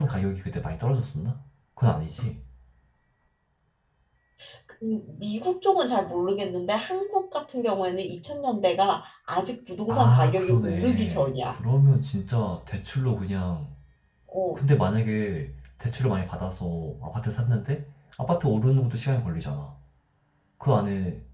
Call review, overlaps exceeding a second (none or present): present